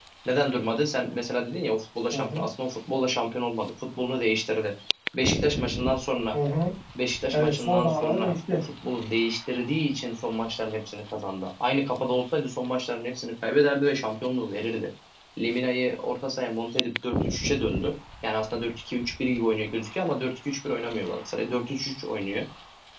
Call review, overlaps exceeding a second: present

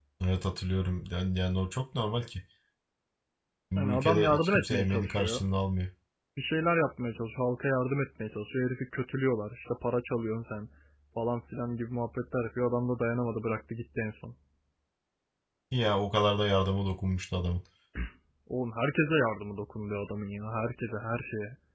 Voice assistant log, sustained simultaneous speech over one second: present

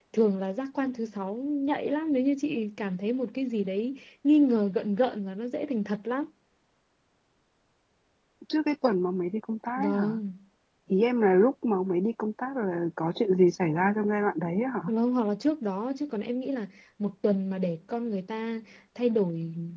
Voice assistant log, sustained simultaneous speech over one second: none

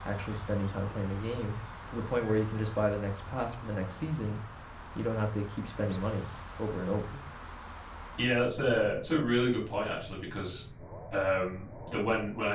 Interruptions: none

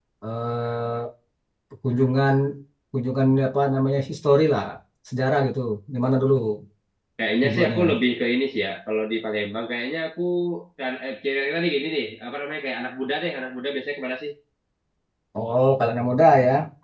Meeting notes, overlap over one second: none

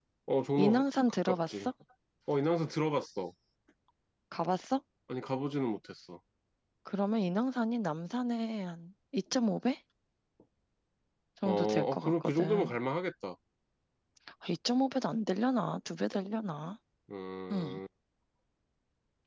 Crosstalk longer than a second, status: present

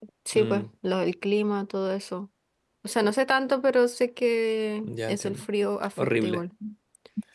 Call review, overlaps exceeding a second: none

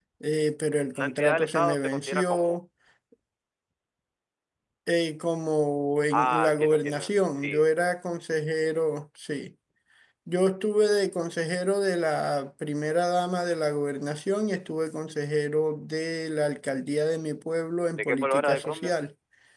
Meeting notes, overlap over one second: present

